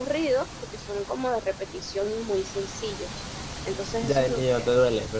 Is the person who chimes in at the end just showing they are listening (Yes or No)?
No